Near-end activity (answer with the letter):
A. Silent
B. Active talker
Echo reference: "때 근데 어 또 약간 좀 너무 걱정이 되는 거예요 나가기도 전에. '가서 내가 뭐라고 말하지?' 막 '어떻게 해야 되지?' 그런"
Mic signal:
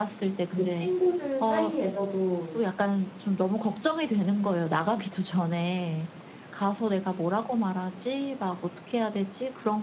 B